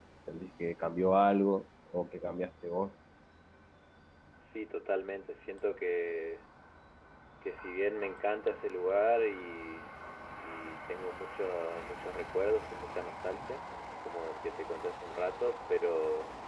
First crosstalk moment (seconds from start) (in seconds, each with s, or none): none